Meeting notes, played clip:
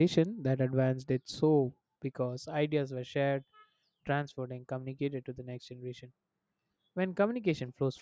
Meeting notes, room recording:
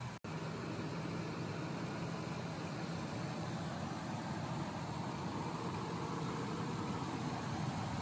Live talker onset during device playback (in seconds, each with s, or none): none